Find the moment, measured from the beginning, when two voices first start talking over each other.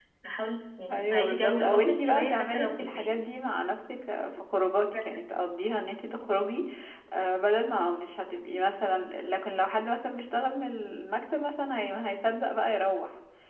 0.9 s

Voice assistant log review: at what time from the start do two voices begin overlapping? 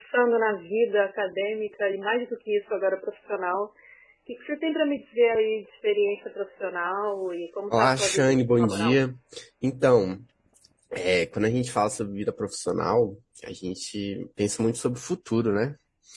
7.7 s

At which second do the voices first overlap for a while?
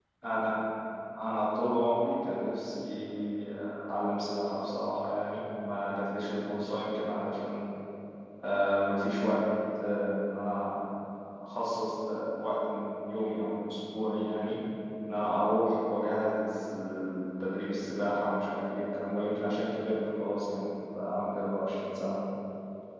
none

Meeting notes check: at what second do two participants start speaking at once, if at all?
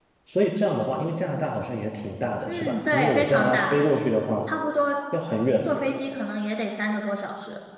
2.5 s

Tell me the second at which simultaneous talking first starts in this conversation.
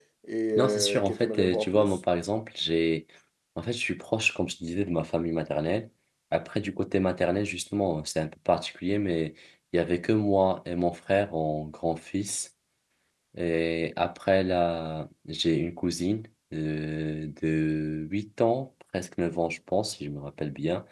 0.6 s

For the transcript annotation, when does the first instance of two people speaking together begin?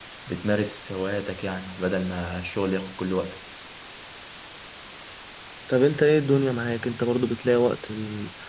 none

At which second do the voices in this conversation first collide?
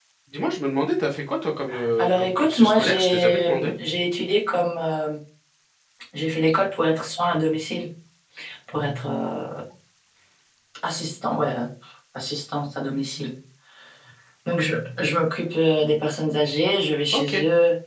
2.0 s

